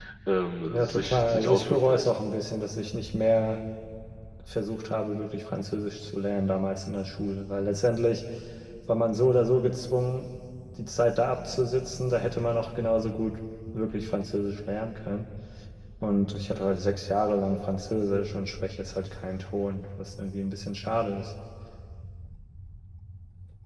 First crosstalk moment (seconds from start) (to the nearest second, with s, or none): 1 s